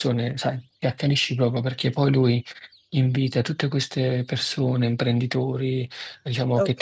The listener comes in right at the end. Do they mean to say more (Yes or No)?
No